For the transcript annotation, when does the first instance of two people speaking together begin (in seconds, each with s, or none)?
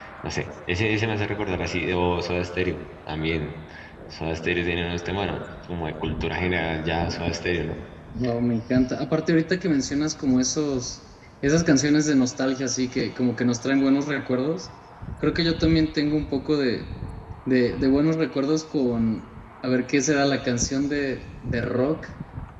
none